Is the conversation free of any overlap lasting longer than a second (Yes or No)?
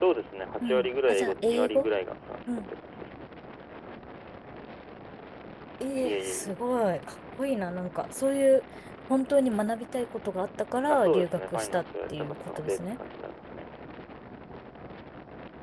No